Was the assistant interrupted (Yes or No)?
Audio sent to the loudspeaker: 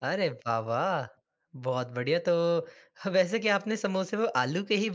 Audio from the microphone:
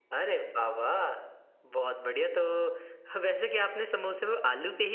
No